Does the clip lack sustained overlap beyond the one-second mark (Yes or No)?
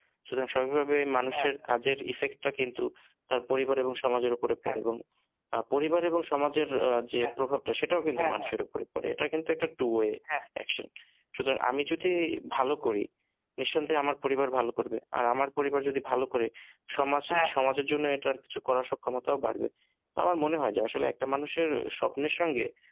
Yes